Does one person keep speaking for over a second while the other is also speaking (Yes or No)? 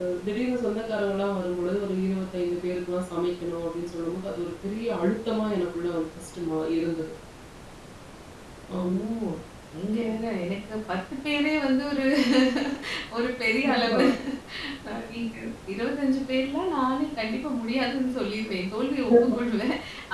No